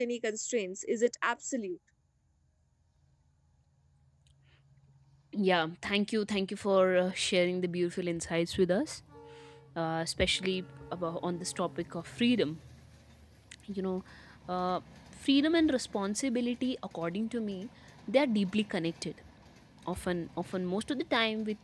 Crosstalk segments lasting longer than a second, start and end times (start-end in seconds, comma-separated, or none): none